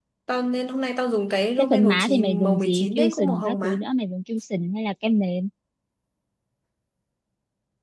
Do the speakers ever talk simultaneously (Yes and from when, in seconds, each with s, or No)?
Yes, from 1.6 s